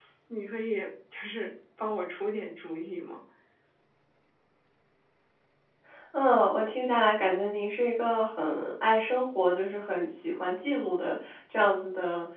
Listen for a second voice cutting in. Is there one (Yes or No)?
No